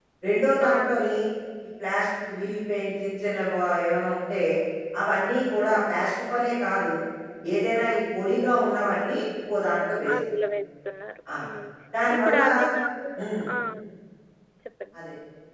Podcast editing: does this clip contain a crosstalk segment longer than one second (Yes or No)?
No